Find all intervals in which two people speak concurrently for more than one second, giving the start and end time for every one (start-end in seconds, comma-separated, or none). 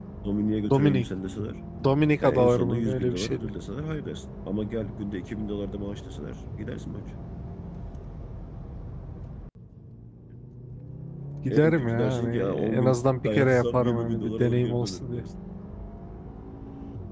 2.2-3.5, 11.5-15.2